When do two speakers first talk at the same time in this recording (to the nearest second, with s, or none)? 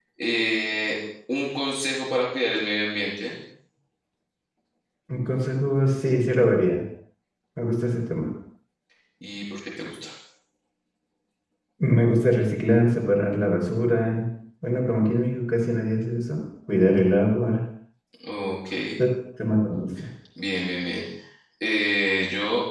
none